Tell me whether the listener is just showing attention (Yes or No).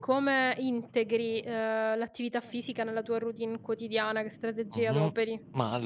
No